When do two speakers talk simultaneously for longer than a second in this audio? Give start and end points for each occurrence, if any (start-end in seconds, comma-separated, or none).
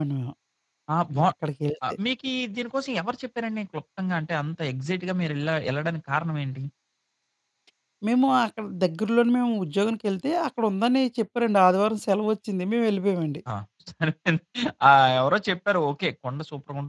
none